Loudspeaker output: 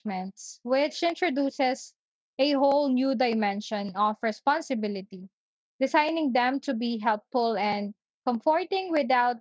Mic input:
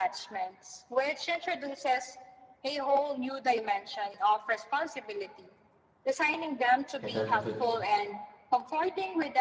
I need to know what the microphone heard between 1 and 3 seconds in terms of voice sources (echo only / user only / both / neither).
echo only